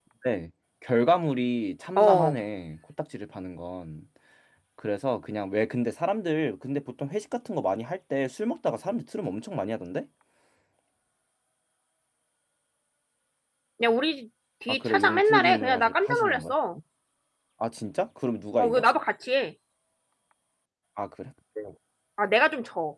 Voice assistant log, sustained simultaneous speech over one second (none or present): present